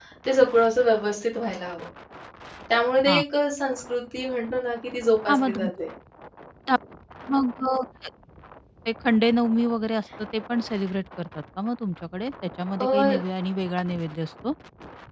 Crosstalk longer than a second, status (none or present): none